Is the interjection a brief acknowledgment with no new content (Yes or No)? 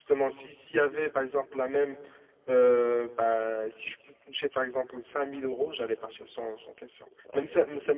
Yes